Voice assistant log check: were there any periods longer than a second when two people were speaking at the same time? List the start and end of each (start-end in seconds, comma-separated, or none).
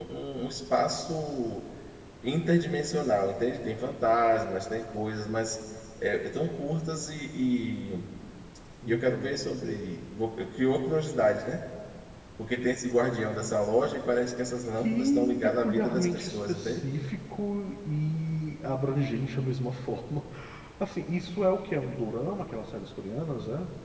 14.8-16.9